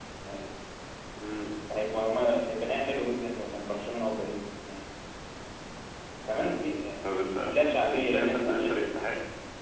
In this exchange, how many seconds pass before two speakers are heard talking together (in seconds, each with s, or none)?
7.5 s